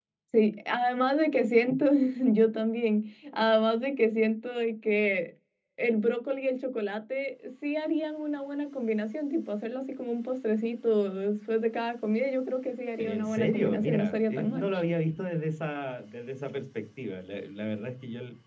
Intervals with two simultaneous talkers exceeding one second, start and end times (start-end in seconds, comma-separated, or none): 13.0-14.6